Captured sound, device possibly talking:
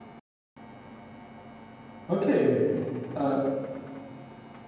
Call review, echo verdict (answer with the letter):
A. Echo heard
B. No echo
B